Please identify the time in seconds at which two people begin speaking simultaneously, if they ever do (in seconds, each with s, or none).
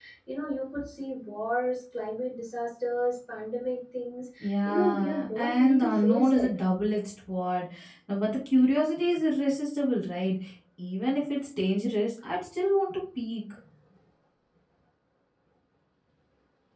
4.4 s